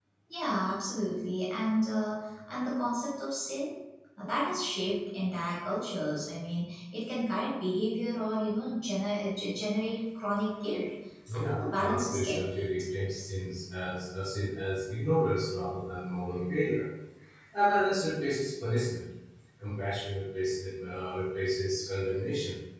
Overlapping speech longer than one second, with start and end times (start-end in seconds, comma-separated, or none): 11.3-12.7